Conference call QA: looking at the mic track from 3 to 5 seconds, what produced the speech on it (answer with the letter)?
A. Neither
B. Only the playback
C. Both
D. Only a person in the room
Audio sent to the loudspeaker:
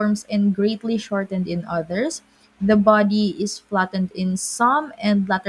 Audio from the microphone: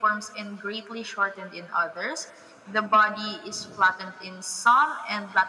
B